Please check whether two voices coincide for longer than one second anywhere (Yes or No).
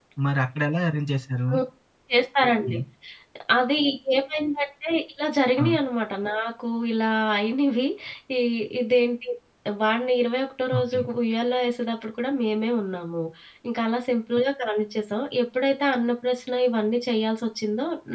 No